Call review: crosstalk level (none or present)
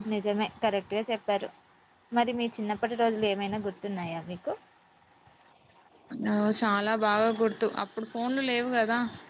none